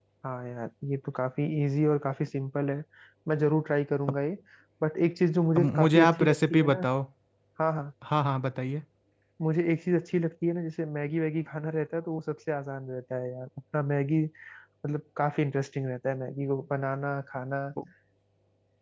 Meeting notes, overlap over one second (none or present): present